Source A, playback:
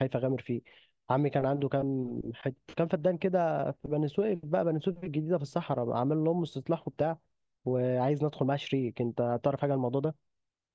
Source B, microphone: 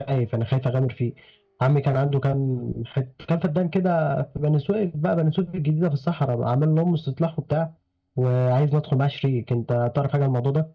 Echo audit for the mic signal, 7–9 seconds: echo only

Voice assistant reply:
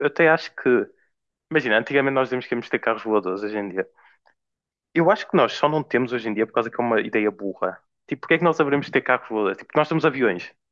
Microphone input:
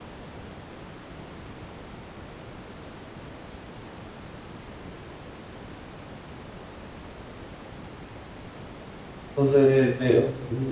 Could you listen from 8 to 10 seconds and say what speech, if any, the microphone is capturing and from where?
user only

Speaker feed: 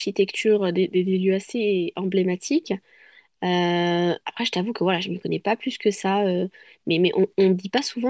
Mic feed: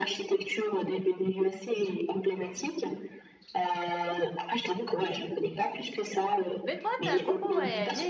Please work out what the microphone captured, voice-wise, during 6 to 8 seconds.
both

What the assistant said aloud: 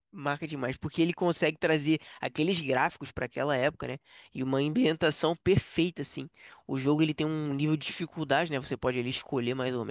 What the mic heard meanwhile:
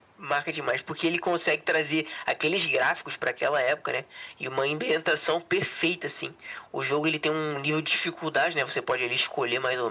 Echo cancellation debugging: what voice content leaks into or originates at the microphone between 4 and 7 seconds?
echo only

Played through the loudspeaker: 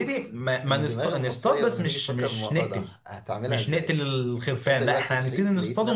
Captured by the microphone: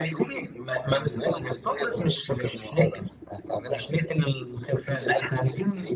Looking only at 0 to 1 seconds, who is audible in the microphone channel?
echo only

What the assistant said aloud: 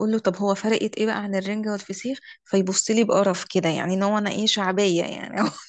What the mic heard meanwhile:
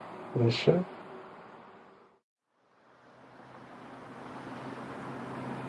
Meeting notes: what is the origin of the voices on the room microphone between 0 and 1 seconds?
user only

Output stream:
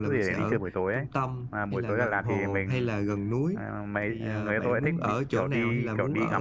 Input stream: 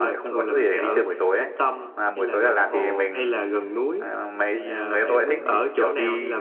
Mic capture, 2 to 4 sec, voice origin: echo only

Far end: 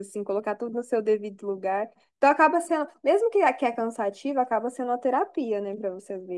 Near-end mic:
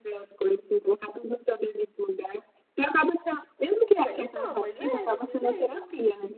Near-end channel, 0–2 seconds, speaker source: echo only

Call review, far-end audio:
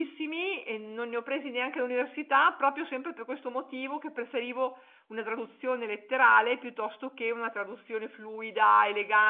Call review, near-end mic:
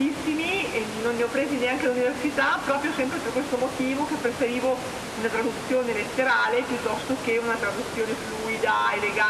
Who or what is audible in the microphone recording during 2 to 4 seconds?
echo only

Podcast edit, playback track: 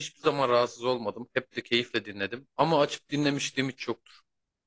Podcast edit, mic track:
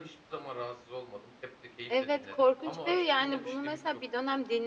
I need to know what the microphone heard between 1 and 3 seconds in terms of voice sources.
both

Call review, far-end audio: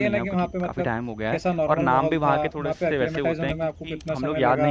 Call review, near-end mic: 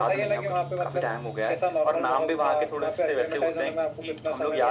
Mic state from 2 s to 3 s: echo only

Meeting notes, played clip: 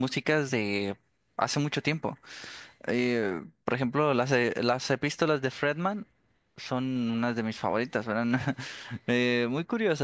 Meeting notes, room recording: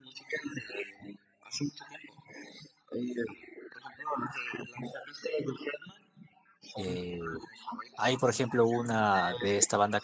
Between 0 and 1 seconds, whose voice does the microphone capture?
echo only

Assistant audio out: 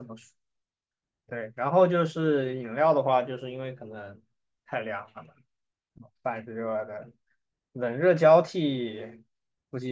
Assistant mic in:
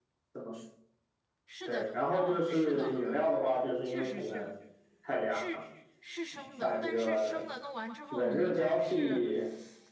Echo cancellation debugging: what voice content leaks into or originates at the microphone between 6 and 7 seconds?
both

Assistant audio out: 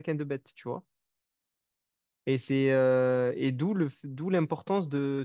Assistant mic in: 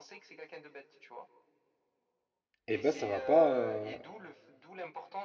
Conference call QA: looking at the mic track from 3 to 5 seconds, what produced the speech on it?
both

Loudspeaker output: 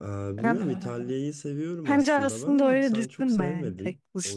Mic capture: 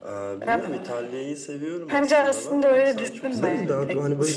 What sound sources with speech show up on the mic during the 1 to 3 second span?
echo only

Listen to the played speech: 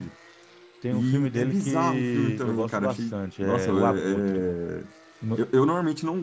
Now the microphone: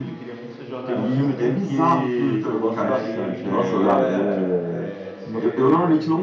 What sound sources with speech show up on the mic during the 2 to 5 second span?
both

